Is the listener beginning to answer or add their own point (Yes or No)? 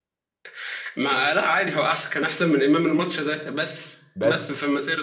No